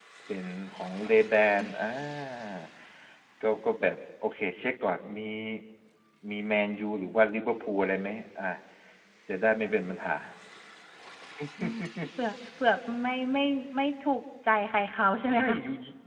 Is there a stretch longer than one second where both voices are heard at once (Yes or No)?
No